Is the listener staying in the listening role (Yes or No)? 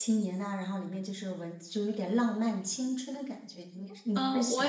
No